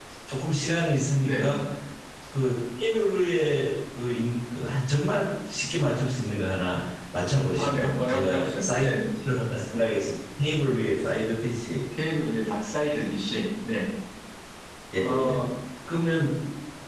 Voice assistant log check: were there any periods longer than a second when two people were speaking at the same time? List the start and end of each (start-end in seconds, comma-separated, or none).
7.6-9.0